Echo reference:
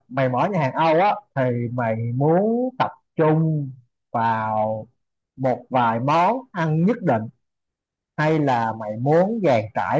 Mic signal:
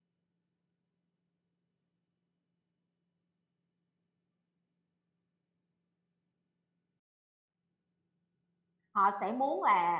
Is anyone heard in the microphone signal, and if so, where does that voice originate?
user only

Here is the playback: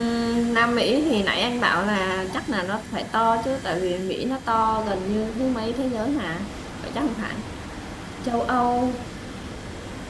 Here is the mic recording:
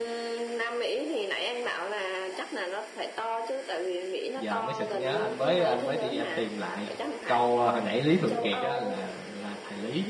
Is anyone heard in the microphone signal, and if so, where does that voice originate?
both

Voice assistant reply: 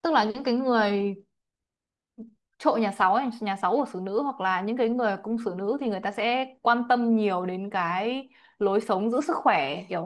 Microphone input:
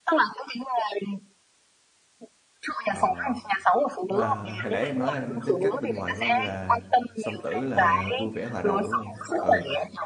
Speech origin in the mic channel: both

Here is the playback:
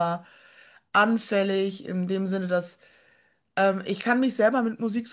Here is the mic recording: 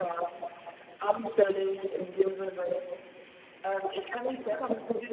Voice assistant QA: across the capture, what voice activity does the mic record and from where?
echo only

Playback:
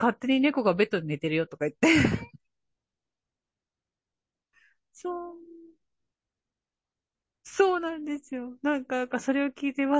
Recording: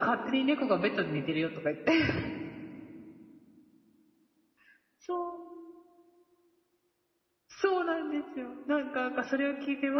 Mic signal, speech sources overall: echo only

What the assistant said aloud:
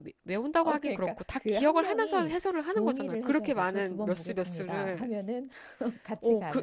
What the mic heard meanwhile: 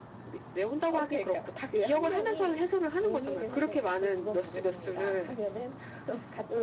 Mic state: echo only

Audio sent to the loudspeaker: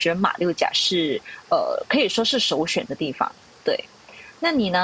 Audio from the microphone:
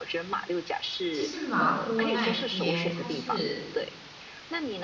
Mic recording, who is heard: both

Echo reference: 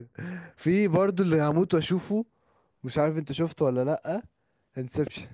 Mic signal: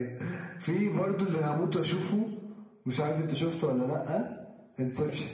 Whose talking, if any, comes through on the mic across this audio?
echo only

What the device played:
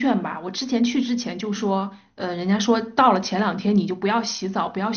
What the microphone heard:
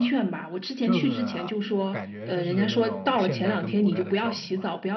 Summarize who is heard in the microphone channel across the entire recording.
both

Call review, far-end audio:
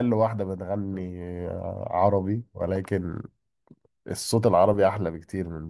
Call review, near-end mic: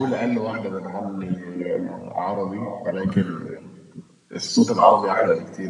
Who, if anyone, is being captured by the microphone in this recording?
echo only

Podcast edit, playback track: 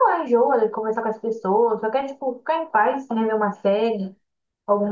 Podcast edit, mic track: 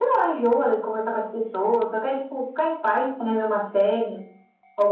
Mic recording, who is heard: echo only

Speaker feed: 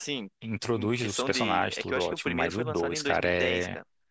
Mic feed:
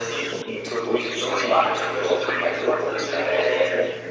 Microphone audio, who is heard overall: echo only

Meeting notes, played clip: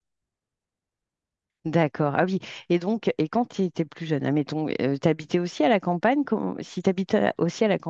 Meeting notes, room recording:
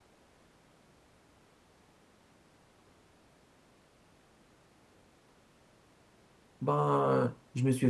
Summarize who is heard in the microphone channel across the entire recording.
user only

